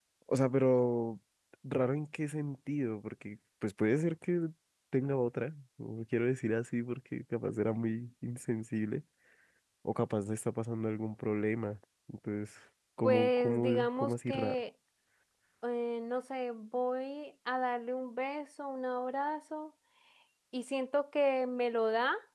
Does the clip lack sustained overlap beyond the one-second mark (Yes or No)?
No